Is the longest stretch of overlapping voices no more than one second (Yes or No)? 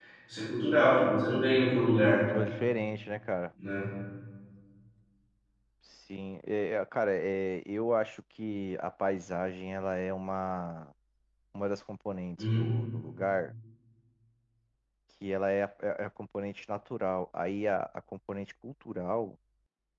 Yes